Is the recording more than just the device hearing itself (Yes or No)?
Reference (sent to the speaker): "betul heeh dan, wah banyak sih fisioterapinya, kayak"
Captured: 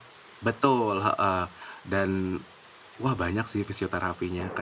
No